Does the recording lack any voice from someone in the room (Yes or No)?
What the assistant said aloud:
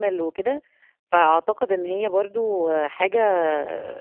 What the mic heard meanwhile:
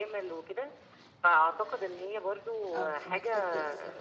No